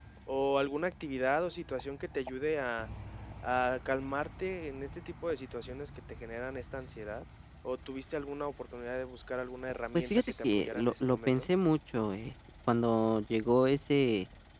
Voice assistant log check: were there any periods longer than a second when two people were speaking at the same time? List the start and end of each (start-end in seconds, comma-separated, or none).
9.9-11.5